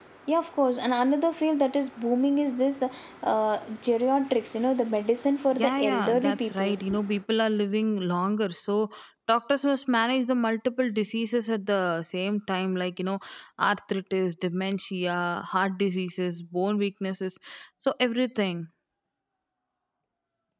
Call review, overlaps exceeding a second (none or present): present